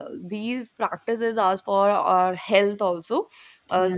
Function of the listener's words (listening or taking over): listening